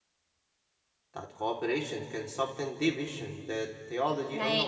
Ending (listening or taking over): taking over